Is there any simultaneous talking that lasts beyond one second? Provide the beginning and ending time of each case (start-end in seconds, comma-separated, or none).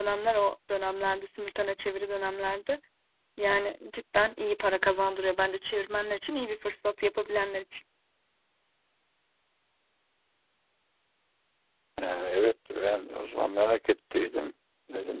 none